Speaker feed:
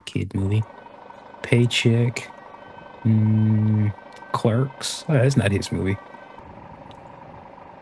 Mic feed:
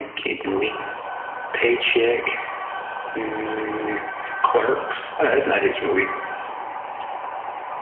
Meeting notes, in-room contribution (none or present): none